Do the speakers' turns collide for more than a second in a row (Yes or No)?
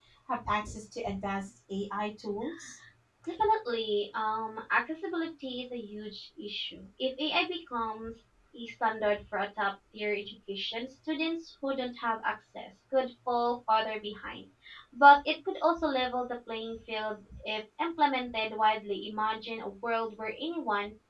No